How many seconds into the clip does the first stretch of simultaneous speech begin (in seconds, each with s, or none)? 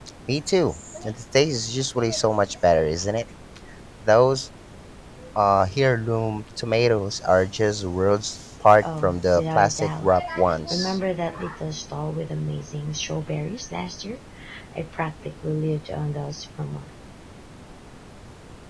8.8 s